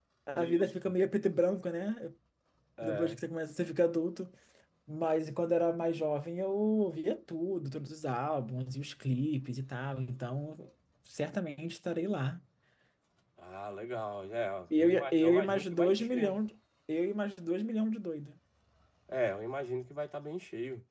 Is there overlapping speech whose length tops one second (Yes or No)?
Yes